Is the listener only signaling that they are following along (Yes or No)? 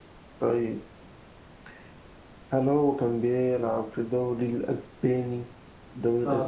No